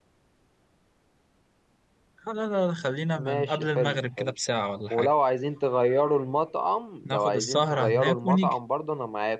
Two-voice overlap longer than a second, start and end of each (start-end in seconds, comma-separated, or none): 3.1-4.3, 7.0-8.6